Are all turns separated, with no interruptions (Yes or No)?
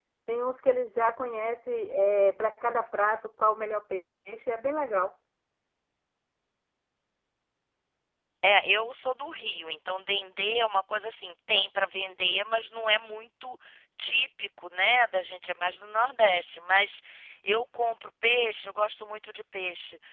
Yes